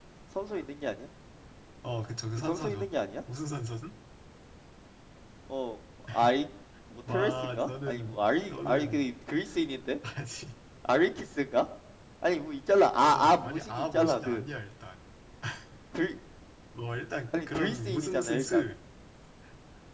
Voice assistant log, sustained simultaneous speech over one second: present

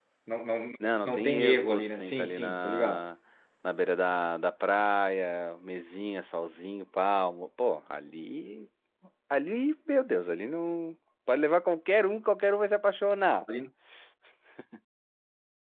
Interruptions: present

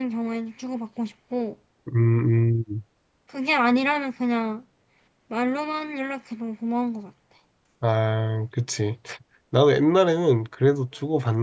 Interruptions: none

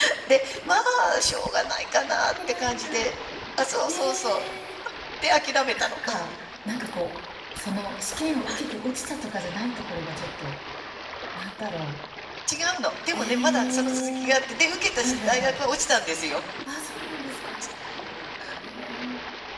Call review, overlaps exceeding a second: present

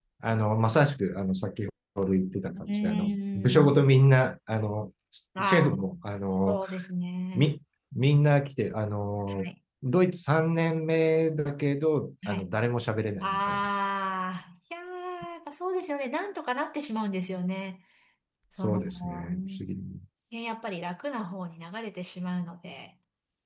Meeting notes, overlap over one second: present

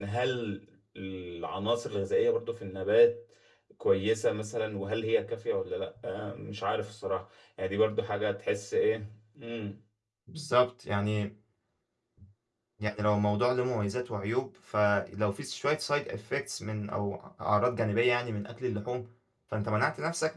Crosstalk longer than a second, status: none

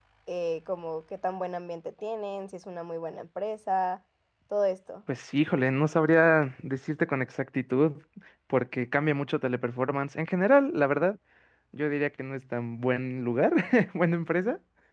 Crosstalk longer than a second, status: none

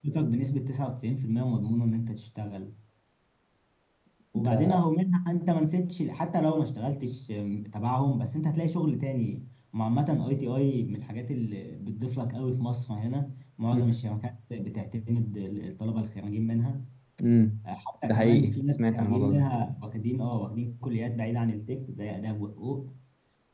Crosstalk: present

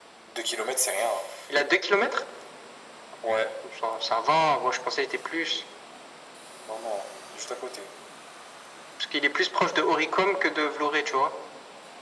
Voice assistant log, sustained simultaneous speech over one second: none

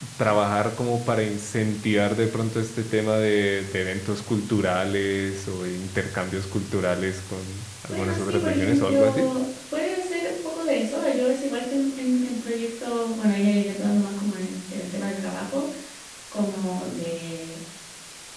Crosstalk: present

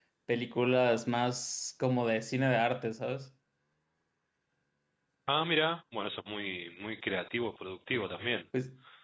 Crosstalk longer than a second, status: none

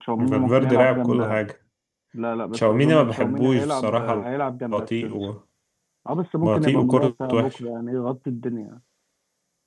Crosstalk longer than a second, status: present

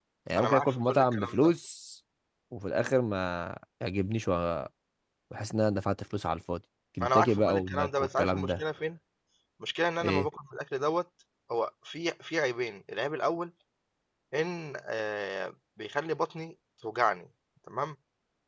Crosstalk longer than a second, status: present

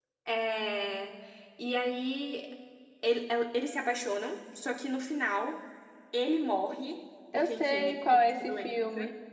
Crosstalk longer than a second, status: present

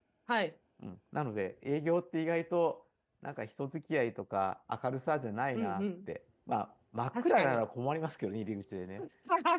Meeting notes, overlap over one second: none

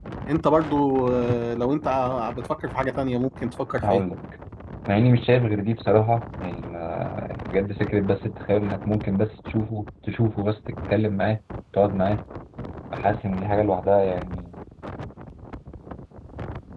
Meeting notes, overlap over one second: none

